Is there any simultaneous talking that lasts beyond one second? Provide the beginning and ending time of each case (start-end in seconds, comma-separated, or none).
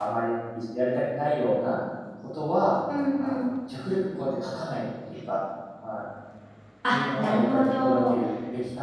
6.9-8.2